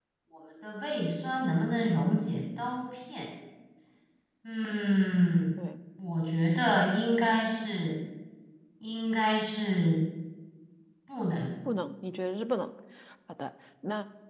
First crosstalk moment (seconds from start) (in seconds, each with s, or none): none